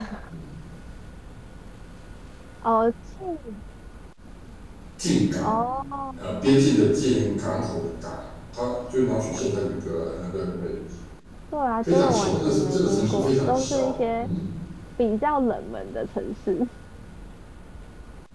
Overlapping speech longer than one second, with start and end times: 11.8-14.3

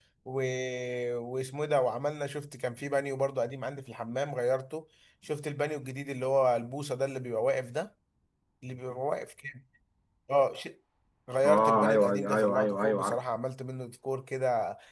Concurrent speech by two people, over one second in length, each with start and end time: 11.4-13.2

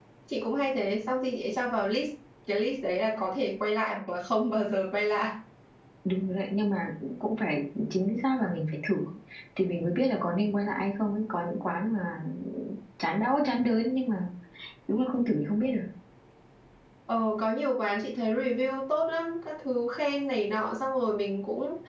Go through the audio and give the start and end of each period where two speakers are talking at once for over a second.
none

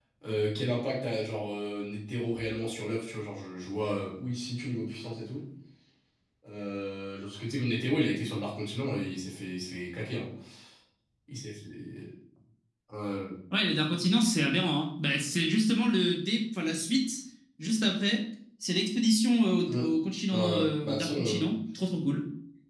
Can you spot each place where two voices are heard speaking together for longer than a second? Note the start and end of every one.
20.3-21.5

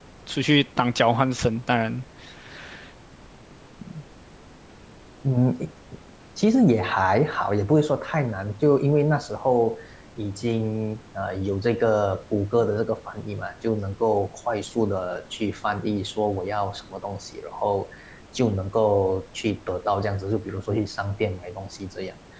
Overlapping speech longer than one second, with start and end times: none

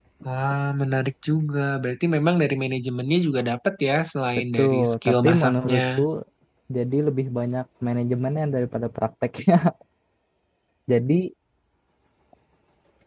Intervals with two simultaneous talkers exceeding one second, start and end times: 4.6-5.8

